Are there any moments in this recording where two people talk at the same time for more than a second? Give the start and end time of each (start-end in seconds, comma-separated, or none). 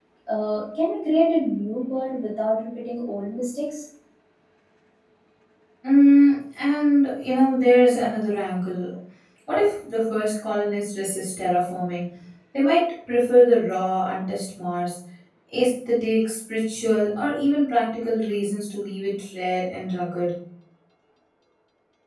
none